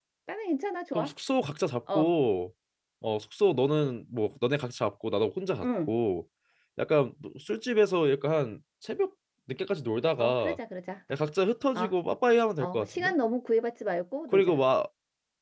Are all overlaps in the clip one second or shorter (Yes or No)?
Yes